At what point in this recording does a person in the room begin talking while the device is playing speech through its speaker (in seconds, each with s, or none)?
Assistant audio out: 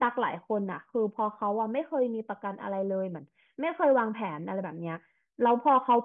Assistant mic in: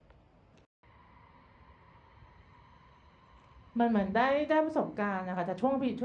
3.8 s